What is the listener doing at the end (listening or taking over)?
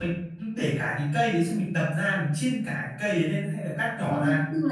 taking over